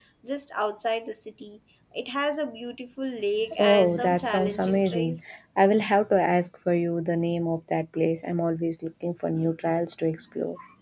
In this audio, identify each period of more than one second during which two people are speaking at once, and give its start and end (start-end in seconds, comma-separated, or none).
3.6-5.3